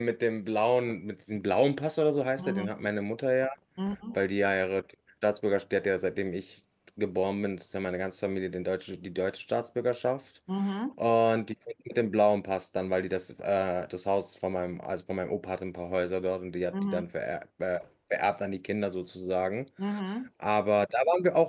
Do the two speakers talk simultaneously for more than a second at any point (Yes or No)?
No